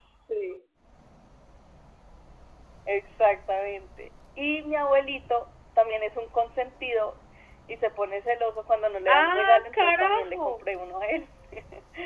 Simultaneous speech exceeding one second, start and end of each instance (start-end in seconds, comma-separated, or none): 9.1-10.6